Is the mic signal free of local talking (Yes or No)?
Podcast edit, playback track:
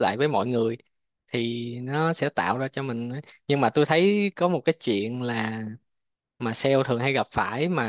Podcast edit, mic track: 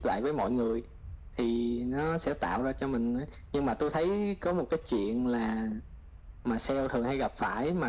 Yes